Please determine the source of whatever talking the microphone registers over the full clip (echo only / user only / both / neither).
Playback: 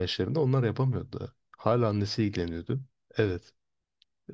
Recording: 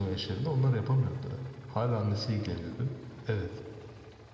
echo only